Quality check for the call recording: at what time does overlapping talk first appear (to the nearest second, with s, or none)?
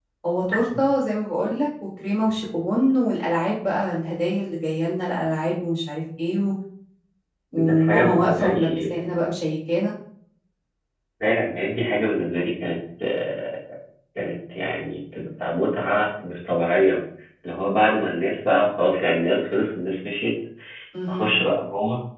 8 s